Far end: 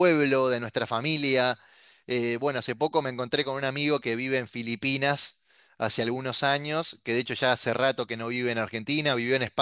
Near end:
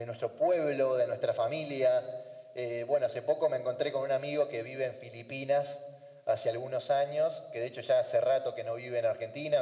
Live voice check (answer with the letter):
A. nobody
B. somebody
A